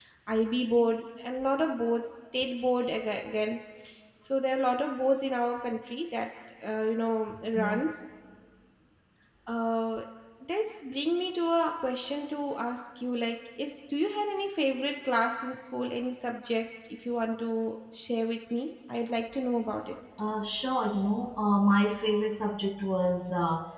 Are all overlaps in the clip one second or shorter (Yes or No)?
Yes